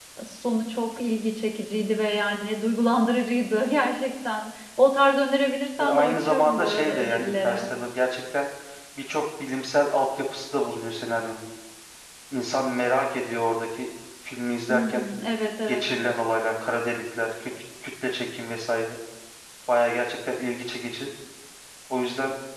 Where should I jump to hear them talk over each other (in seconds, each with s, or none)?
5.8 s